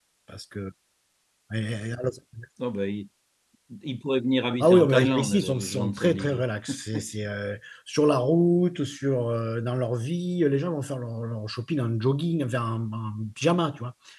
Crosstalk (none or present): present